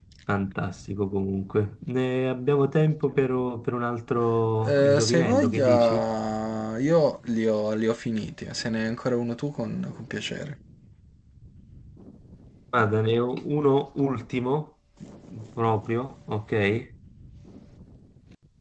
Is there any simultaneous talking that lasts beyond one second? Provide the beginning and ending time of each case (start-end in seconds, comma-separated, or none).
4.7-6.0